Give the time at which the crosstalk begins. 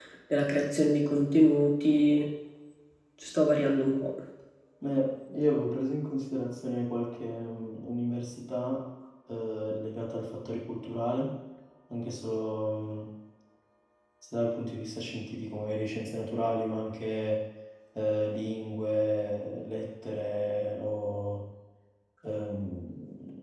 none

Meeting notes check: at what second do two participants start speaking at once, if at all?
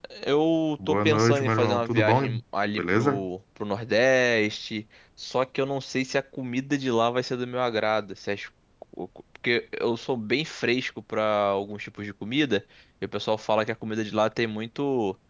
0.9 s

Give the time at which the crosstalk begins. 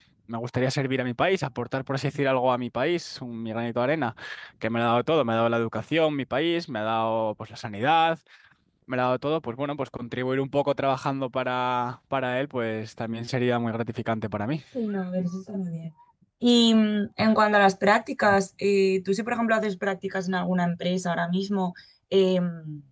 none

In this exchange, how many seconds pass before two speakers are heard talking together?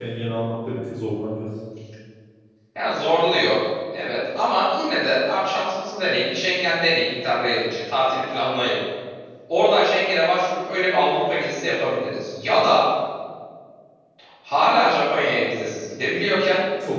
none

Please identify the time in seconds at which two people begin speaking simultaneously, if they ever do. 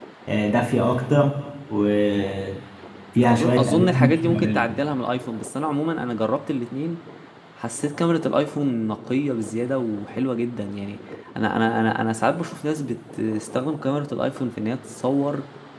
3.2 s

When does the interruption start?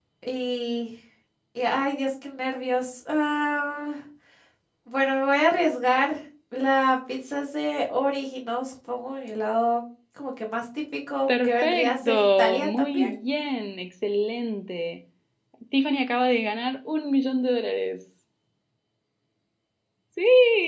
11.3 s

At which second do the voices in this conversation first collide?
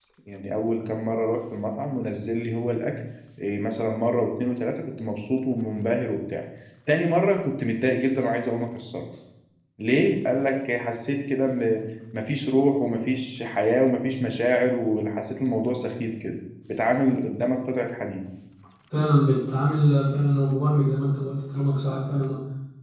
none

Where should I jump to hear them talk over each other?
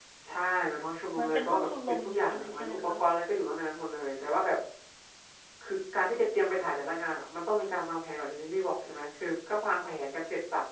1.2 s

